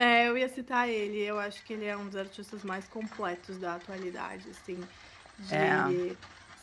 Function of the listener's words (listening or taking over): listening